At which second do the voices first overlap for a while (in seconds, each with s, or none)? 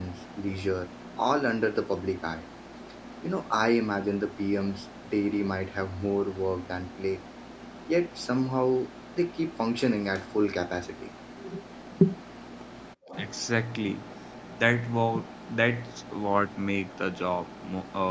none